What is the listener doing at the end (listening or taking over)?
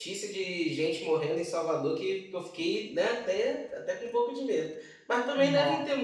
listening